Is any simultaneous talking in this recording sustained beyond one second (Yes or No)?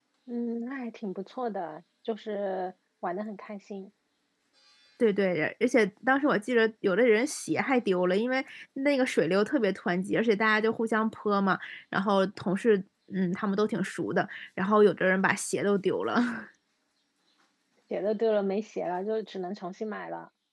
No